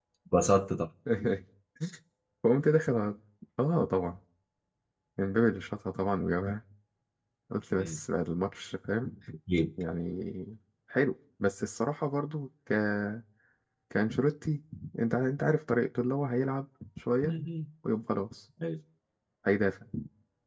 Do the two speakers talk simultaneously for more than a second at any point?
No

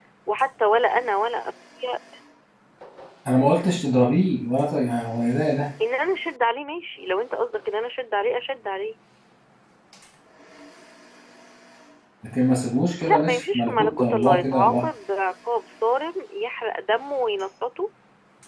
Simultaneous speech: Yes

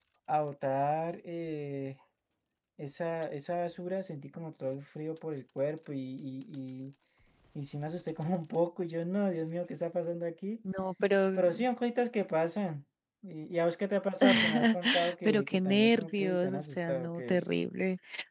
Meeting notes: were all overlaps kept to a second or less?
No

